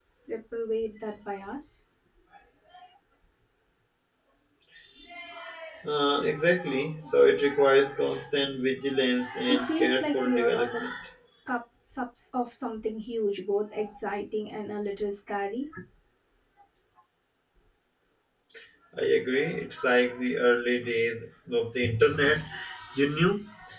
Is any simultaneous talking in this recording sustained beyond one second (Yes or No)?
Yes